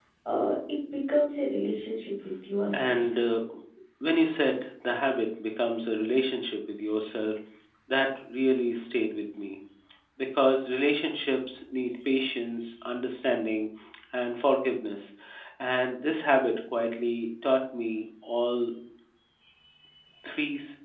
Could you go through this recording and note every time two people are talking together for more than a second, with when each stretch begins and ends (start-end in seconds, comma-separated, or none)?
none